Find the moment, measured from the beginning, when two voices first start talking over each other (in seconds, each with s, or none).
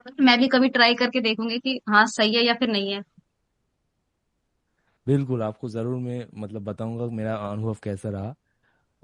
none